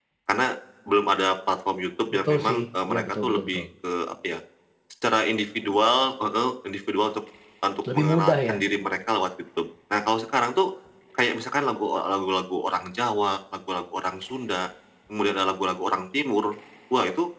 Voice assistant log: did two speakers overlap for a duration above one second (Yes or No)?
Yes